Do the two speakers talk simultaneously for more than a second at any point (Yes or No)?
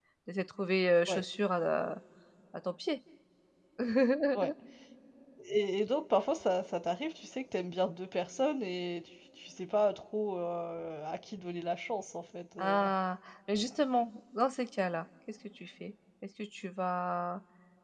No